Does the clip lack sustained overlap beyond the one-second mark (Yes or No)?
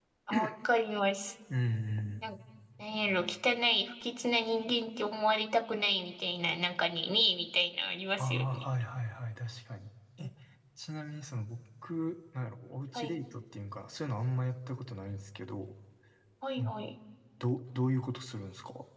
Yes